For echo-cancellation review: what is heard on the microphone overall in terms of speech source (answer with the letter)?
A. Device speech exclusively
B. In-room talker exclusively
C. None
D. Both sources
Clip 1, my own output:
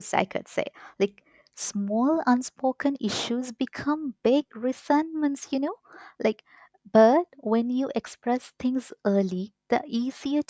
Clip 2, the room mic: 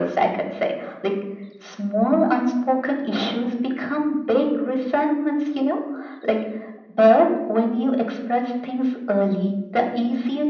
A